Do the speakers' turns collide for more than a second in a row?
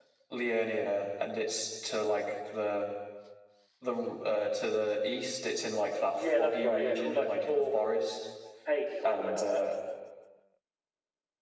Yes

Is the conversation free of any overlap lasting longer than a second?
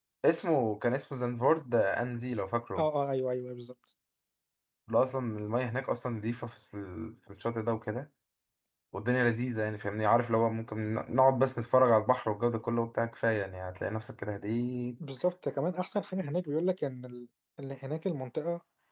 Yes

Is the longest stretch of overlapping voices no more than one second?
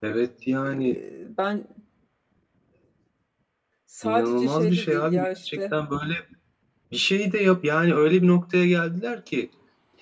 No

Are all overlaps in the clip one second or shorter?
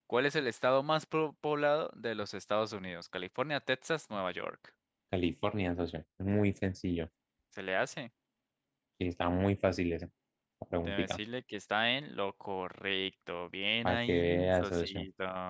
No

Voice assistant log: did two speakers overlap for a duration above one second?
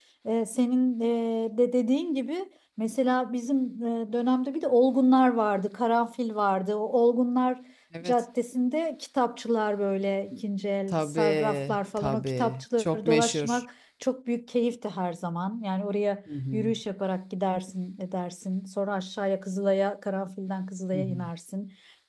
Yes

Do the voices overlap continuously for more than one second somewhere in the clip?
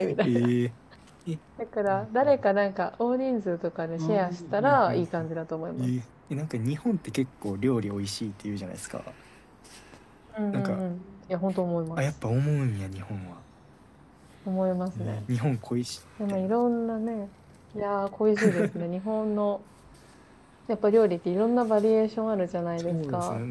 Yes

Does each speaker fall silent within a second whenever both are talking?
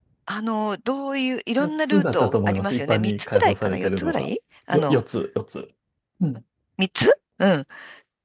No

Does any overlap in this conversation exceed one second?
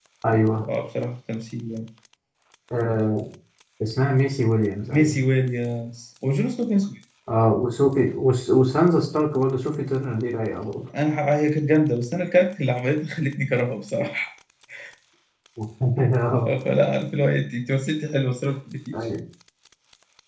No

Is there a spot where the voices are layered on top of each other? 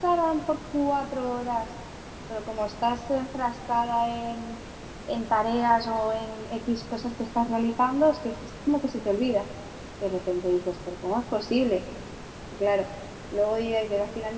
No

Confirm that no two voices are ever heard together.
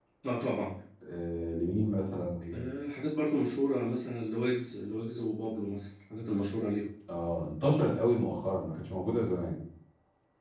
Yes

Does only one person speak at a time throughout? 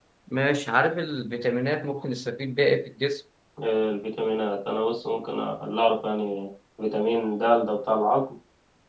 Yes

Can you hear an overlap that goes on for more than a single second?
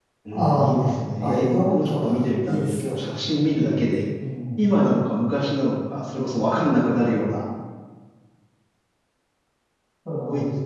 Yes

